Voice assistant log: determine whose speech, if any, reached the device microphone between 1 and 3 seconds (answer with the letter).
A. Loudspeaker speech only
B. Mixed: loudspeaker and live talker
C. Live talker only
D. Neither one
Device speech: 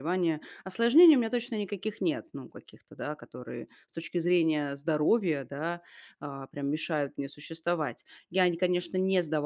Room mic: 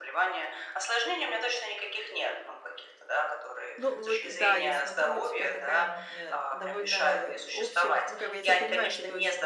A